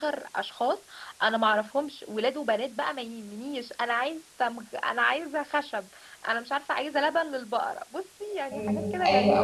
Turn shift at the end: Yes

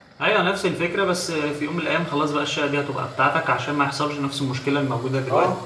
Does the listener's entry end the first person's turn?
Yes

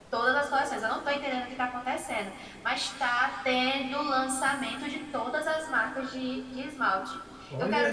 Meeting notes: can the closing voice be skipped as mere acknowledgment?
Yes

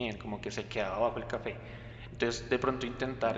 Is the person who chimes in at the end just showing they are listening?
Yes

